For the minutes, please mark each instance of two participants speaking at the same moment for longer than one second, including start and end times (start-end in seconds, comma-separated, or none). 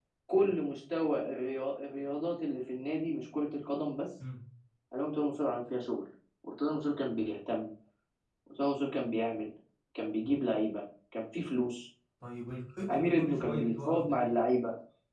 12.9-14.4